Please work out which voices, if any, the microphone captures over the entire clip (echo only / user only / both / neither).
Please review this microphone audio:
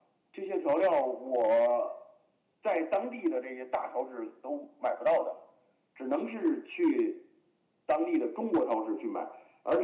echo only